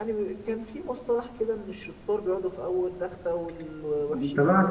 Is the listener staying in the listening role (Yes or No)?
No